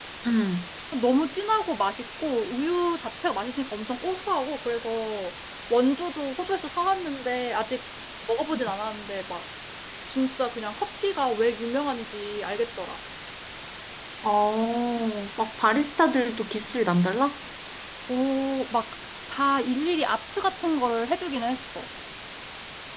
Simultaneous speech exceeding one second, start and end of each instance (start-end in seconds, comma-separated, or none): none